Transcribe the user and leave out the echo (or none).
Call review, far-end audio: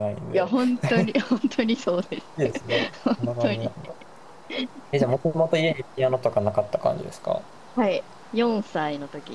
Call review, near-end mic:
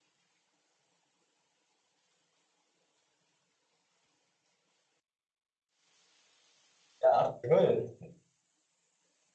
や、すごいです。